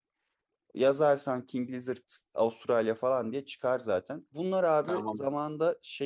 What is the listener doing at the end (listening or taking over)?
listening